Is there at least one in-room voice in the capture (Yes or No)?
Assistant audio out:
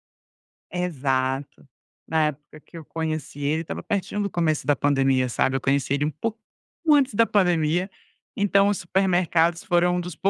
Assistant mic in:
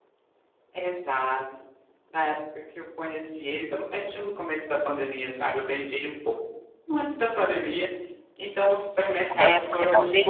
Yes